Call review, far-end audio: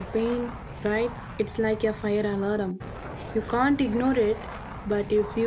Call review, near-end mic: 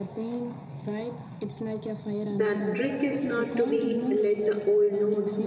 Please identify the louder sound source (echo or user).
user